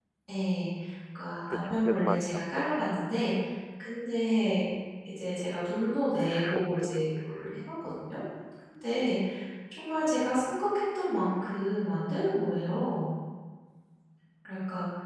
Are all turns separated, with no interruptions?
No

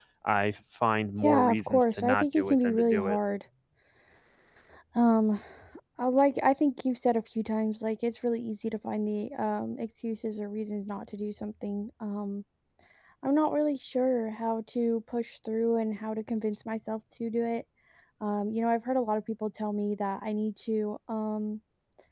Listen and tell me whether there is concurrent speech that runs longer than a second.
Yes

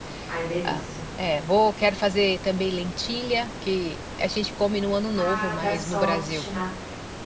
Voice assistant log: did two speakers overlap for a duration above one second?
Yes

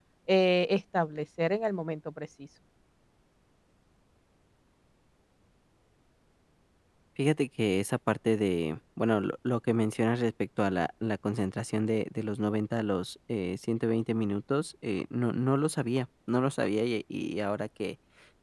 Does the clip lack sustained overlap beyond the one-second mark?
Yes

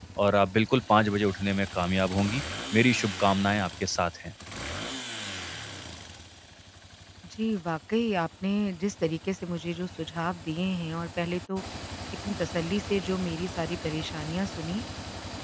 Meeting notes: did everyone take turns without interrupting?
Yes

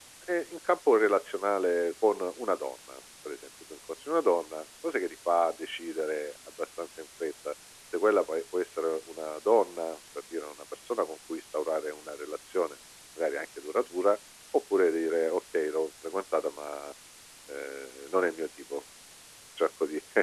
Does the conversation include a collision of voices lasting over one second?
No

